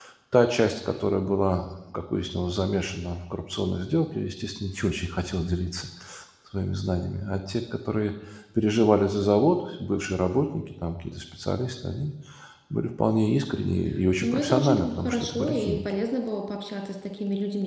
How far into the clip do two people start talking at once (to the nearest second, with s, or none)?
14 s